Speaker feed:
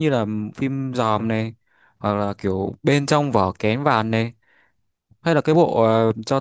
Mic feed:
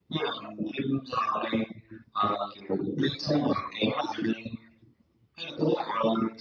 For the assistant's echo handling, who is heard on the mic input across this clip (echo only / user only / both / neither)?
echo only